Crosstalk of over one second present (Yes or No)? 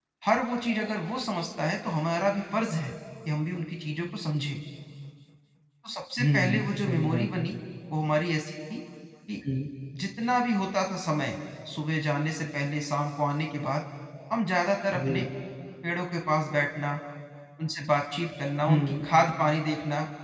Yes